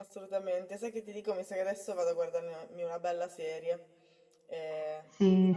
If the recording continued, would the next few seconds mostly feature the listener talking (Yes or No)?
Yes